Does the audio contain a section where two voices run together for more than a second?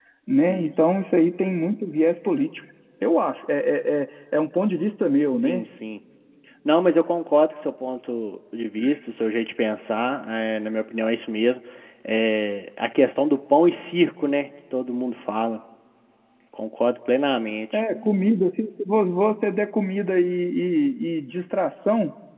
No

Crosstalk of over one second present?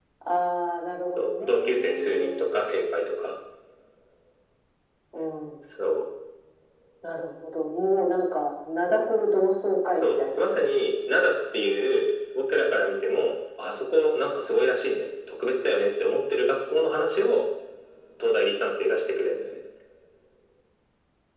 Yes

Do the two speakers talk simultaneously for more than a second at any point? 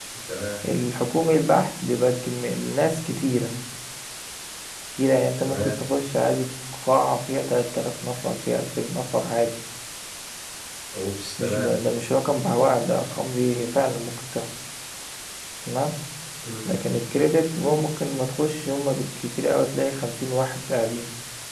No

